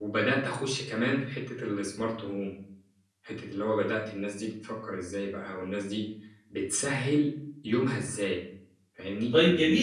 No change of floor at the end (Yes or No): No